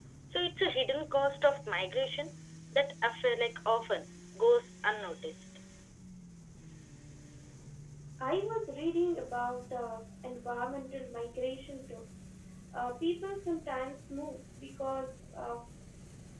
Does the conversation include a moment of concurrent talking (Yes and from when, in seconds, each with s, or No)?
No